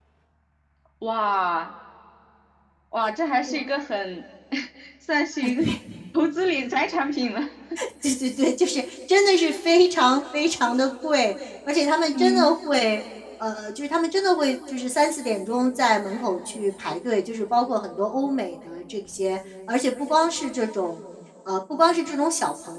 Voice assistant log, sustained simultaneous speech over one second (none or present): none